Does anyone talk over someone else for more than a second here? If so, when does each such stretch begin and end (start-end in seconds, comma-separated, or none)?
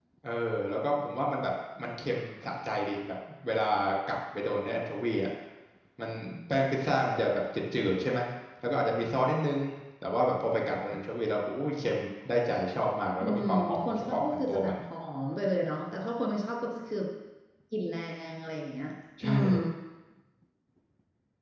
13.2-14.8